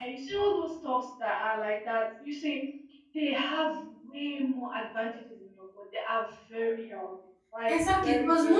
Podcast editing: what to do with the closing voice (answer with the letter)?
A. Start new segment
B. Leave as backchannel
A